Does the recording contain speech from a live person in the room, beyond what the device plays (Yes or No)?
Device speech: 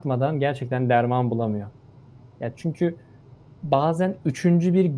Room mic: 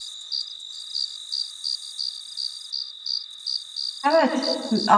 Yes